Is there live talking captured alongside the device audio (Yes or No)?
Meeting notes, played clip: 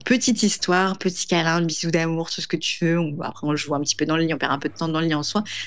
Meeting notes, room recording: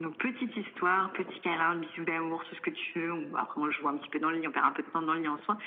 No